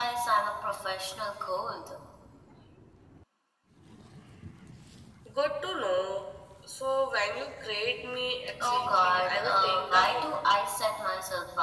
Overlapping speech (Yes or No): Yes